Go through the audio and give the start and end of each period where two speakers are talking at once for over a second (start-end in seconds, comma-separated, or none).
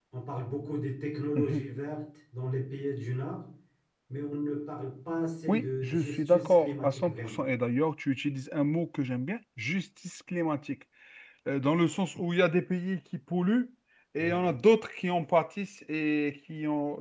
5.5-7.4